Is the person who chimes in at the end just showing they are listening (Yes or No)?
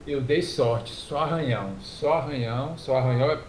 Yes